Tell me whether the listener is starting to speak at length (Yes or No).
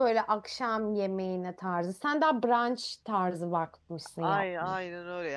Yes